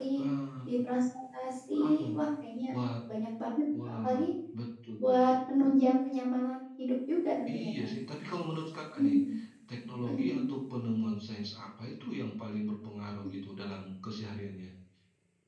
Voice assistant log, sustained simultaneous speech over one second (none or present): none